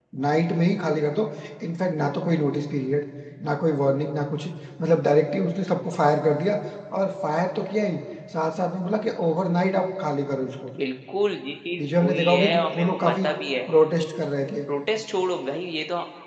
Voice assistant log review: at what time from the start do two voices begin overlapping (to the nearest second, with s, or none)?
12 s